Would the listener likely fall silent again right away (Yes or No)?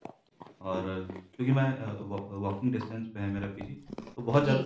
Yes